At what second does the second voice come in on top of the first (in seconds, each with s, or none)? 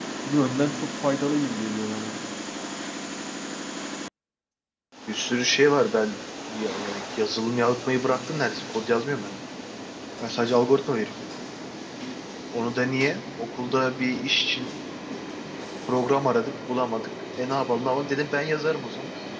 none